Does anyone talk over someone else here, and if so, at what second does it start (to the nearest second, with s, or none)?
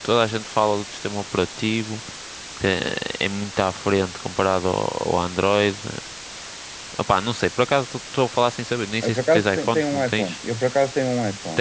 9 s